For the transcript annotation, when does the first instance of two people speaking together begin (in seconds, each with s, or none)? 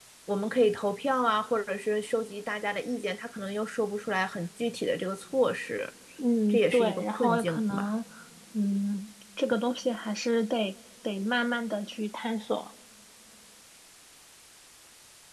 6.5 s